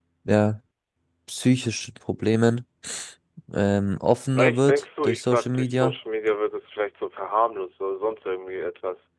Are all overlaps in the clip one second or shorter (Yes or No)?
No